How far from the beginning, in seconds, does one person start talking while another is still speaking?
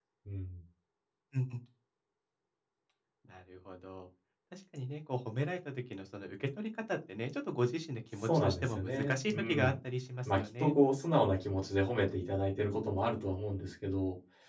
8.2 s

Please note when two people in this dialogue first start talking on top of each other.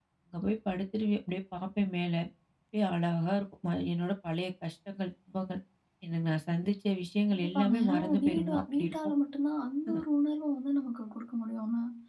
7.3 s

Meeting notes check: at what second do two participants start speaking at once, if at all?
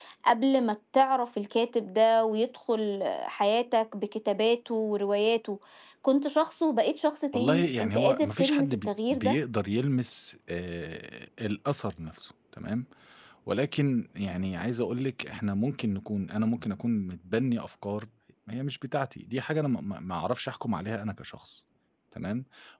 7.3 s

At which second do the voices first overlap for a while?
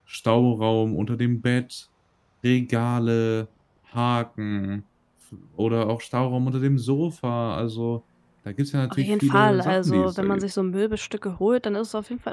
8.9 s

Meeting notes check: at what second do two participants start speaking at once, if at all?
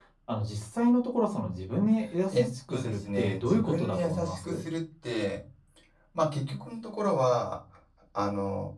2.3 s

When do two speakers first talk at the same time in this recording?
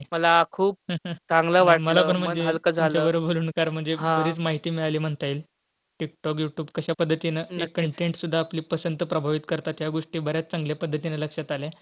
1.6 s

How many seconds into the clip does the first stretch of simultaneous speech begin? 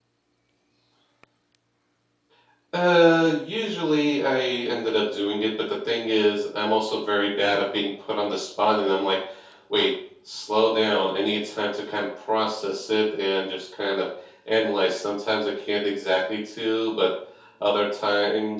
none

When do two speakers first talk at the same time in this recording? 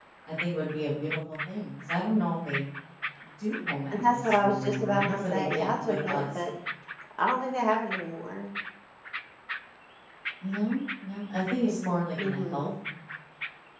3.9 s

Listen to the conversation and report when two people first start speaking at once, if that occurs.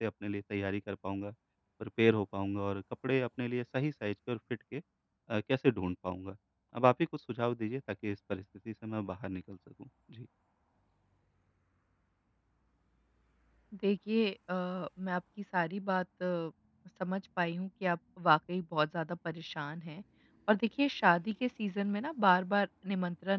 none

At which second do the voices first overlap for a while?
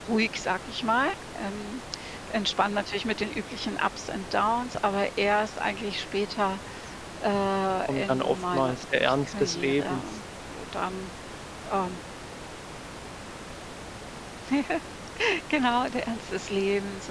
7.9 s

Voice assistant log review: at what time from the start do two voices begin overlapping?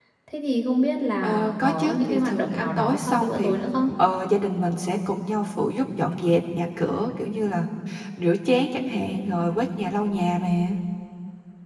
1.2 s

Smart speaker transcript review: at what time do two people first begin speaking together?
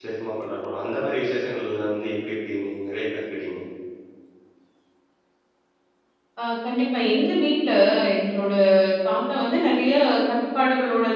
none

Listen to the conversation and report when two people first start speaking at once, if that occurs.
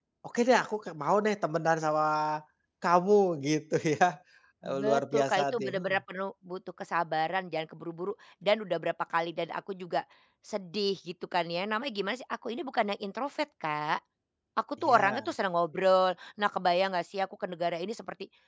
4.7 s

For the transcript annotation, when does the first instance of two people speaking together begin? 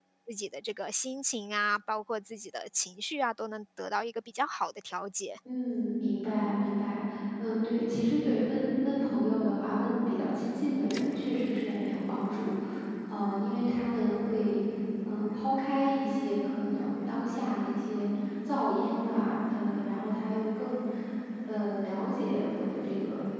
none

